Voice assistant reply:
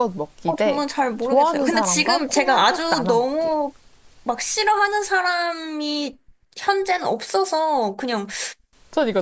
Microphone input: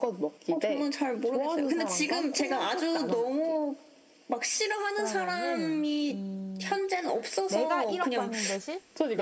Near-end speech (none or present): present